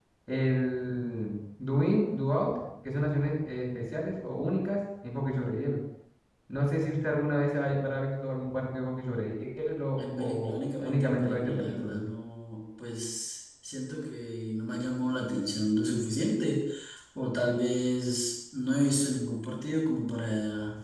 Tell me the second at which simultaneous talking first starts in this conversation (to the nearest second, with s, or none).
10 s